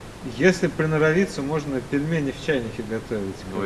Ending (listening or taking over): taking over